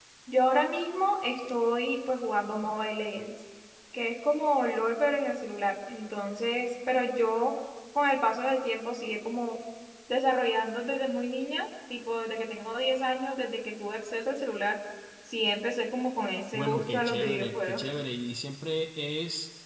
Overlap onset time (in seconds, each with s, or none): 16.5 s